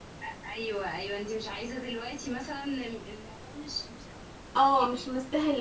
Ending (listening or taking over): taking over